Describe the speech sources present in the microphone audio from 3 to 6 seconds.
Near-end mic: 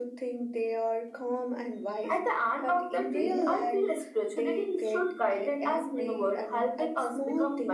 echo only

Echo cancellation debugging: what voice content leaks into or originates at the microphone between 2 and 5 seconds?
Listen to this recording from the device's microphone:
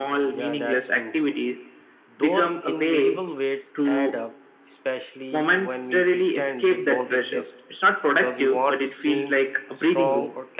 both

